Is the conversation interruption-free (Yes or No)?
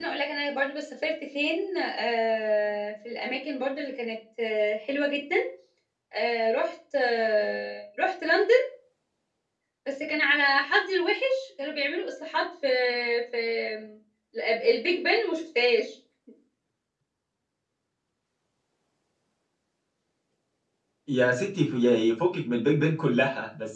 Yes